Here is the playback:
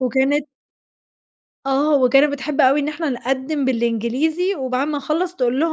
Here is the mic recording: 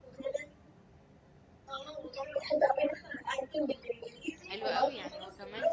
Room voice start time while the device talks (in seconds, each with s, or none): 4.5 s